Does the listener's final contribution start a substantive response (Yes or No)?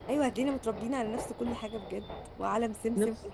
No